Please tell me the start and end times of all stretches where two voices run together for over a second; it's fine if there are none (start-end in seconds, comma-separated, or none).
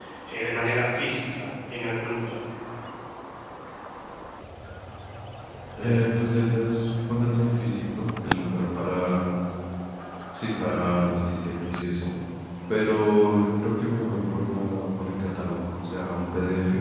none